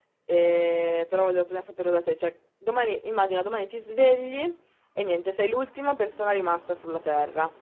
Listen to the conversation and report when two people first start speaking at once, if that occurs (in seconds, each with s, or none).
none